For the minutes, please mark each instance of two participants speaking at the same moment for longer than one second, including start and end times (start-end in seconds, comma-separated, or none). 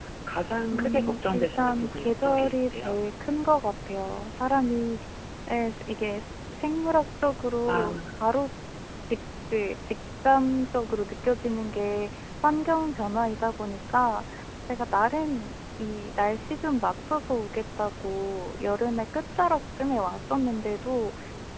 0.7-3.0